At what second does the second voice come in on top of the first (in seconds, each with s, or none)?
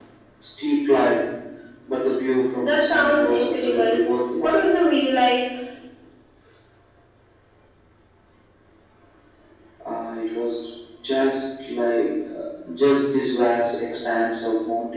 2.6 s